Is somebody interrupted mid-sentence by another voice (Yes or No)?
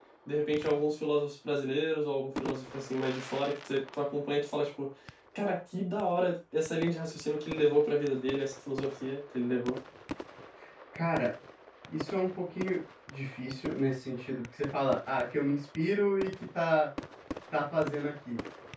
No